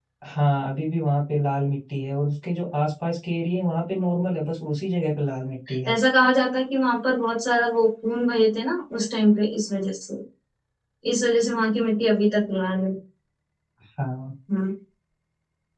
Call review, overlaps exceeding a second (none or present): none